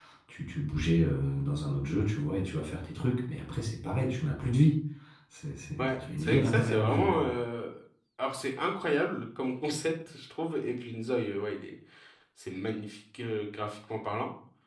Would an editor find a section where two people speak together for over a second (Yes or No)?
Yes